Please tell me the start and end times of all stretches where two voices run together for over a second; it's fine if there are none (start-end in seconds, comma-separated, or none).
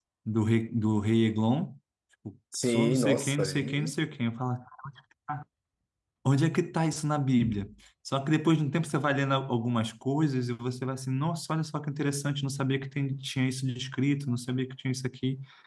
2.6-4.0